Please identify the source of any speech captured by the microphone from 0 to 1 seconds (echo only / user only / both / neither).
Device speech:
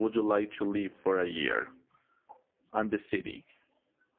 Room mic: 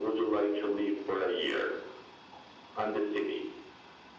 echo only